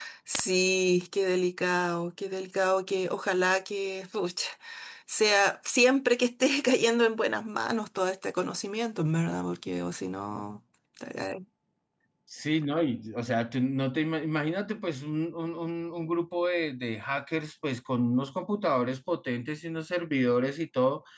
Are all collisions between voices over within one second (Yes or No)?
Yes